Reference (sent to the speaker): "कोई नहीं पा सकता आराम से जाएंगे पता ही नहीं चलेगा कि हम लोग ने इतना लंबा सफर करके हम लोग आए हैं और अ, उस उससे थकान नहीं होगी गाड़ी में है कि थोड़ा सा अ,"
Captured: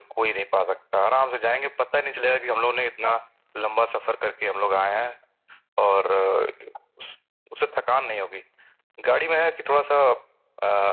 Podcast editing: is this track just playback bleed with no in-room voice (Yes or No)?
Yes